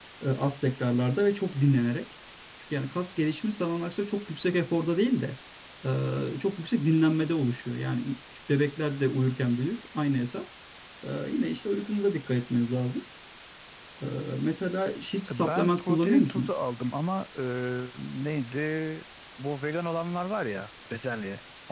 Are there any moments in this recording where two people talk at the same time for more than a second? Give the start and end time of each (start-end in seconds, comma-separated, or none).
15.3-16.5